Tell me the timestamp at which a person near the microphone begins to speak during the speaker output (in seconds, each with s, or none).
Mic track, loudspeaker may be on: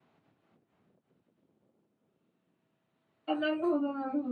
3.3 s